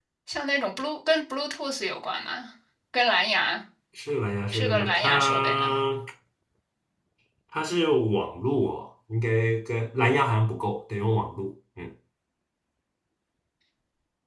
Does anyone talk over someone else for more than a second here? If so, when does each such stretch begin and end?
4.5-5.7

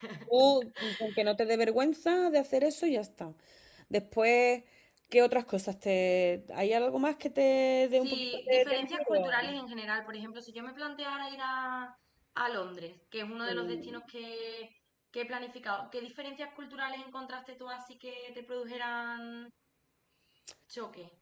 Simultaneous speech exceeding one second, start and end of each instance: 8.0-9.5

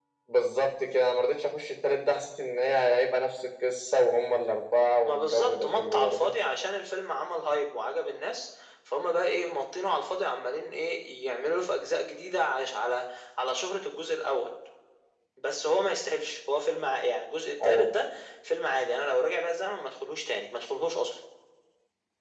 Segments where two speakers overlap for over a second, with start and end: 5.0-6.3

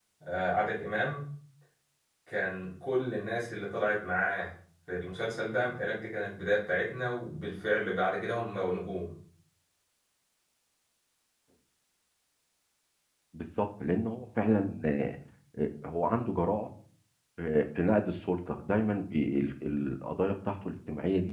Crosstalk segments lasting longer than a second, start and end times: none

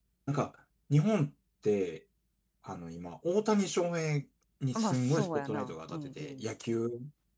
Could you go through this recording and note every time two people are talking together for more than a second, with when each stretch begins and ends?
4.8-6.3

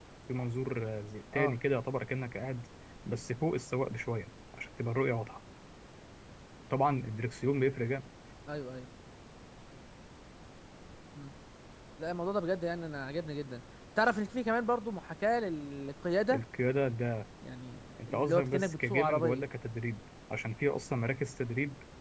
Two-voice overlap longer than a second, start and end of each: 18.0-19.4

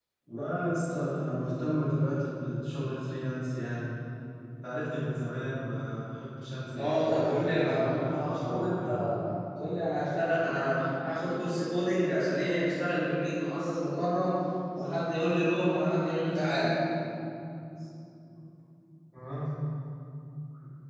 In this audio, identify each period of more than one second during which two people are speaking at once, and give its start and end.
6.8-8.9

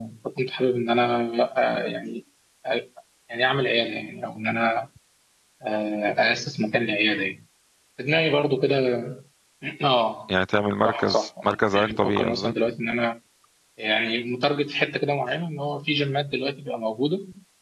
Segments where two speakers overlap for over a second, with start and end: 10.8-12.5

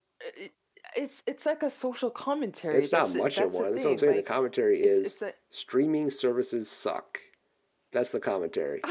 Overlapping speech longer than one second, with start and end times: 2.7-4.3

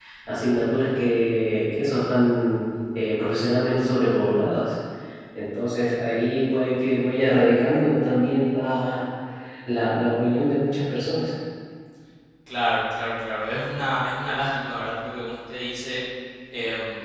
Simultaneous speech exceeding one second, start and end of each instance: none

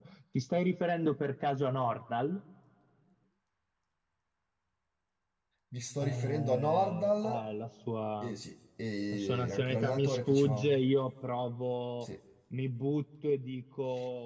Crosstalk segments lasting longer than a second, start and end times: 6.0-7.4, 9.1-10.7

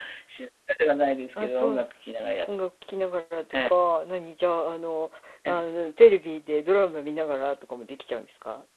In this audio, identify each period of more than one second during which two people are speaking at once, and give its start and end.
none

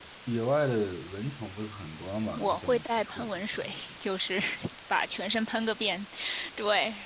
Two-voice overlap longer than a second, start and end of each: 2.4-3.8

